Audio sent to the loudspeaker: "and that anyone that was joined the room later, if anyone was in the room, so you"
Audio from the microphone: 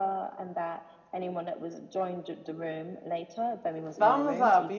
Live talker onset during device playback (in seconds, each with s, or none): 3.8 s